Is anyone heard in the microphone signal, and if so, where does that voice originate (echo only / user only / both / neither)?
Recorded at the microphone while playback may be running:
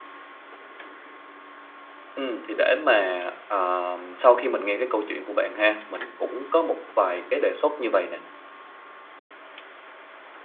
user only